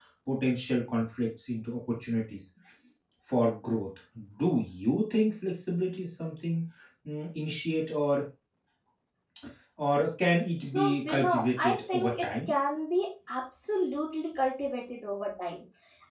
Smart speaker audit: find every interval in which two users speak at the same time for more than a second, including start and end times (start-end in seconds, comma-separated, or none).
10.6-12.5